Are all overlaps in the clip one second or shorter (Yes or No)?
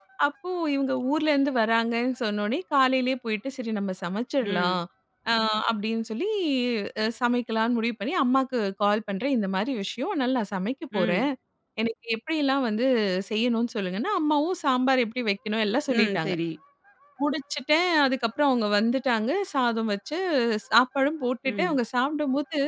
Yes